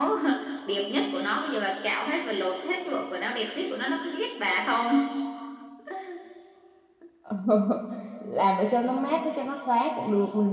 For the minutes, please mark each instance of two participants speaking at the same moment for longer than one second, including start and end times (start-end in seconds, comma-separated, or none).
none